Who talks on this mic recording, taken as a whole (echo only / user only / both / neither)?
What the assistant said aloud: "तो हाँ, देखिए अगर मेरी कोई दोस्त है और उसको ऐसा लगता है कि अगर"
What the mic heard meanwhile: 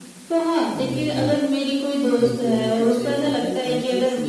both